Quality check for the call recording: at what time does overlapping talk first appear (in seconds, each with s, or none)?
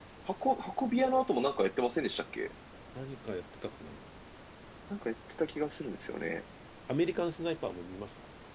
none